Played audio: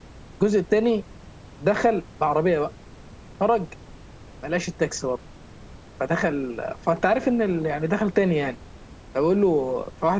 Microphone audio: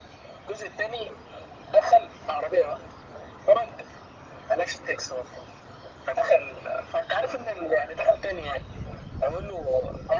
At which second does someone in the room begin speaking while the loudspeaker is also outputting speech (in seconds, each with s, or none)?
none